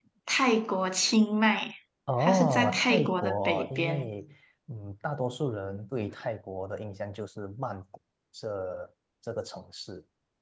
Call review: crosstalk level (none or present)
present